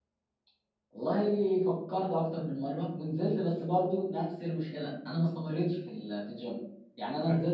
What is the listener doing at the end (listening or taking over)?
listening